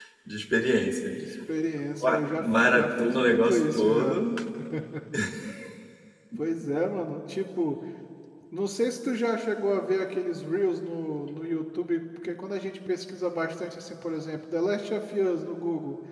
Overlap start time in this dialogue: 2 s

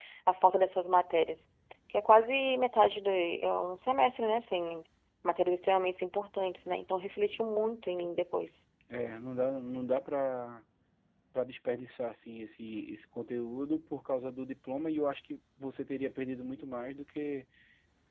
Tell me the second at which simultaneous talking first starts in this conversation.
none

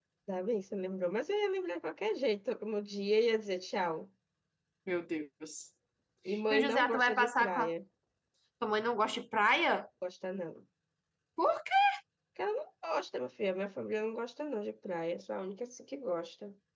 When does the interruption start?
7 s

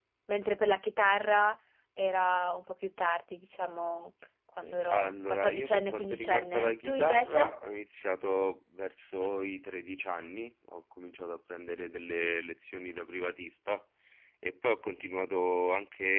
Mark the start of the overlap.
5 s

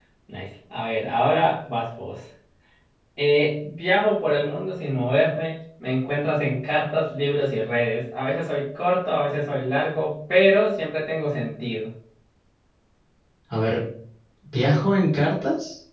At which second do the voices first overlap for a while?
none

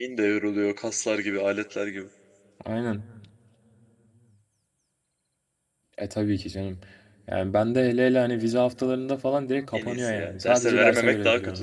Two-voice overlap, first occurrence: 10 s

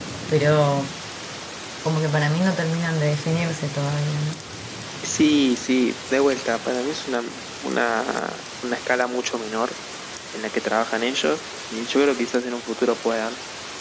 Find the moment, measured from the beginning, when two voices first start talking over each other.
none

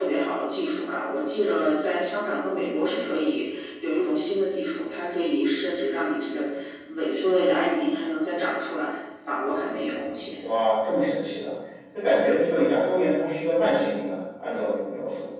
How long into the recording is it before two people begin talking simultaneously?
none

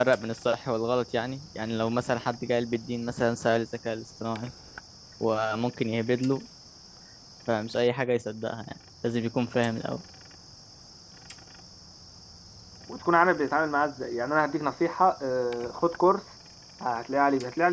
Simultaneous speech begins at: none

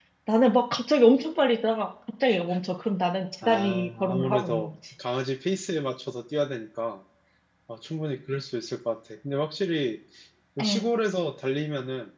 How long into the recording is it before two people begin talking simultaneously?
3 s

